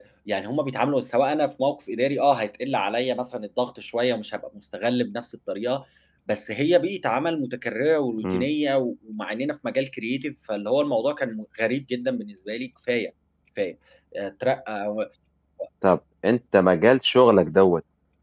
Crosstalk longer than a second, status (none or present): none